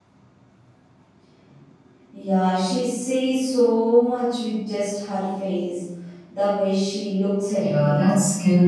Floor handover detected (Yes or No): Yes